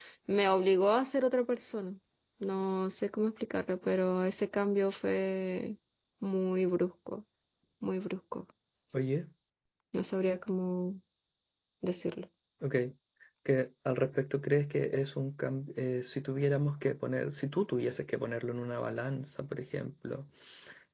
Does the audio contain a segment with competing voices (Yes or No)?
No